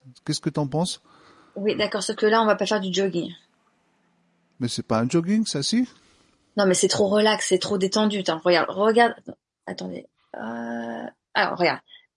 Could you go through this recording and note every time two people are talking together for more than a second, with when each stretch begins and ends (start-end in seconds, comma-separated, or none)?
none